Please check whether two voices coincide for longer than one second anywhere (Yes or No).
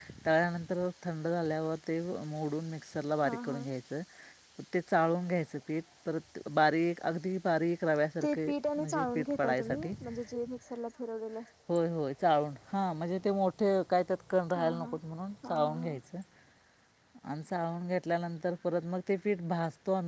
Yes